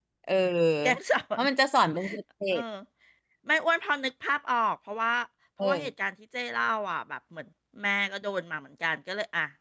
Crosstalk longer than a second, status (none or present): none